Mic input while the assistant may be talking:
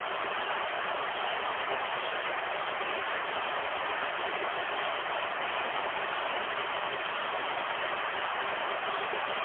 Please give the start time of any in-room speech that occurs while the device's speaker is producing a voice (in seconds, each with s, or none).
none